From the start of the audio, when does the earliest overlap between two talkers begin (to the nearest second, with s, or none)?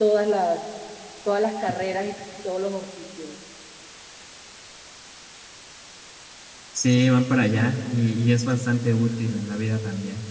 none